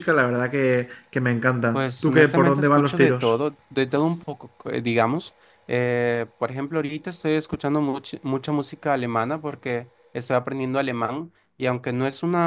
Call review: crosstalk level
present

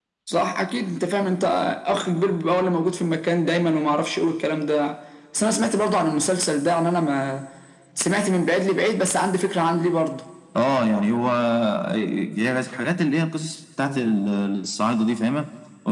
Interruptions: none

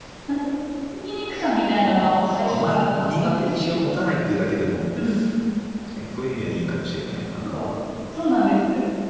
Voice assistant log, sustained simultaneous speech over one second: present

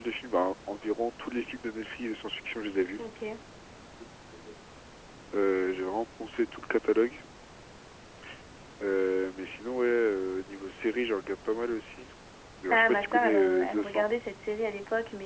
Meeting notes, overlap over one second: present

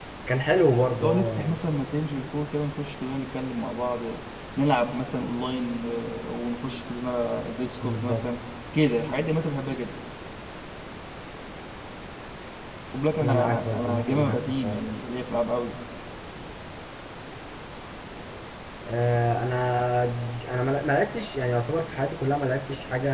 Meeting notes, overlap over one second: present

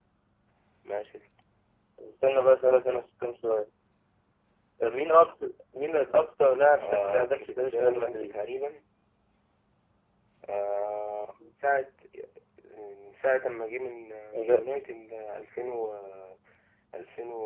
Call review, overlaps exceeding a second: present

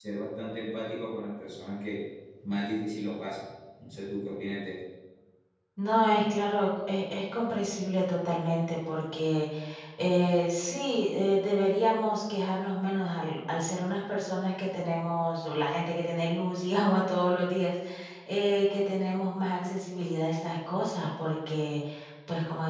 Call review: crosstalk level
none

